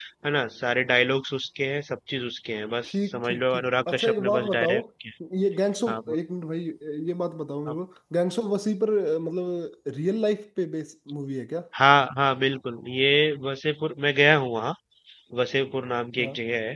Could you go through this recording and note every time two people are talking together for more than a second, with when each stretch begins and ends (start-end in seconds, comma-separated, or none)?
2.8-4.8